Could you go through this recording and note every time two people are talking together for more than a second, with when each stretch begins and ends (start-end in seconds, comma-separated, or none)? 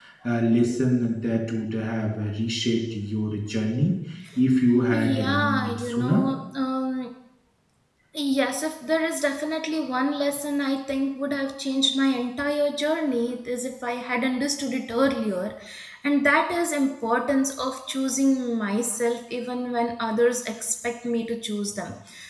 4.9-6.2